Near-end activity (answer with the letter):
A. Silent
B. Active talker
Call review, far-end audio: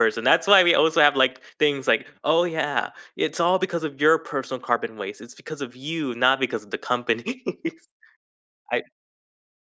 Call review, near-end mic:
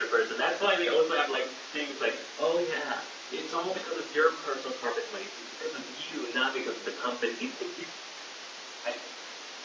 A